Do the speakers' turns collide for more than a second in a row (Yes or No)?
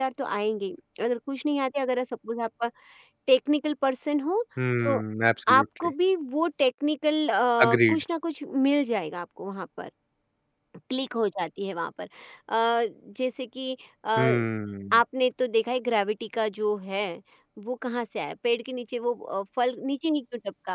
No